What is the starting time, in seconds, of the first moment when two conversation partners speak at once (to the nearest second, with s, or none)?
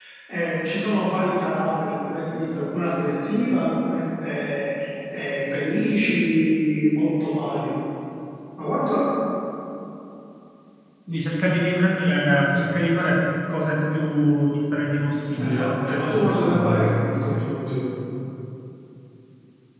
15 s